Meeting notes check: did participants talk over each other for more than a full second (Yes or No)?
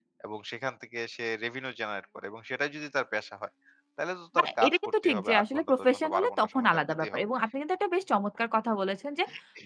Yes